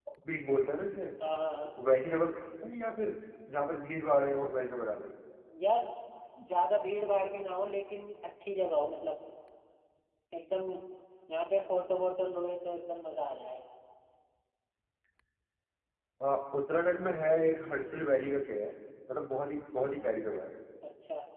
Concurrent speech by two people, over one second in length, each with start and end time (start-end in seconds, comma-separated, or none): none